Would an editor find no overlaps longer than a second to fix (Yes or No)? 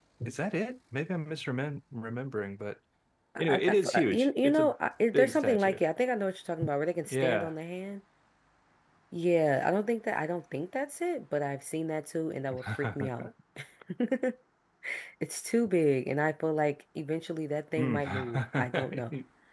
No